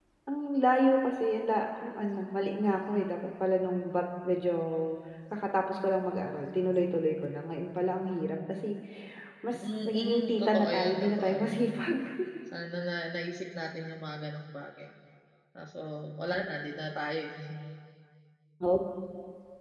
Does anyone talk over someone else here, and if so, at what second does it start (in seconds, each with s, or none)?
9.6 s